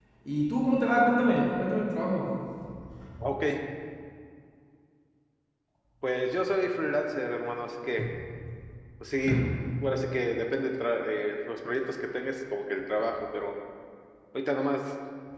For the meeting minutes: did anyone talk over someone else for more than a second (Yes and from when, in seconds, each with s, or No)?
No